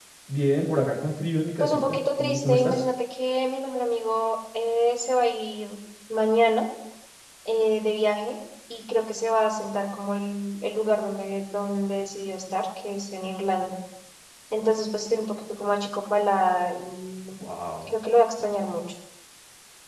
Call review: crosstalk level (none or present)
present